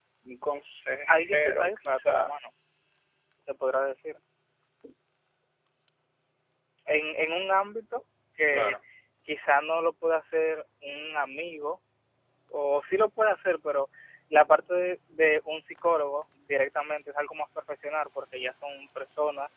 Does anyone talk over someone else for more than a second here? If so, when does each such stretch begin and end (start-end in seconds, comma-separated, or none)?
1.1-2.3